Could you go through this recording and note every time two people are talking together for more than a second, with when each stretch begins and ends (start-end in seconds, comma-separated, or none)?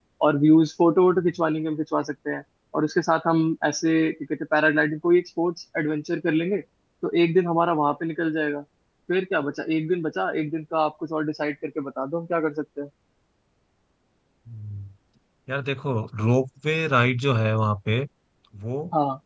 none